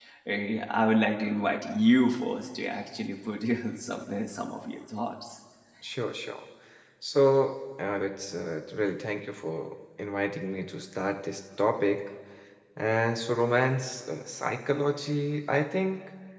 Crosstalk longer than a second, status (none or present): none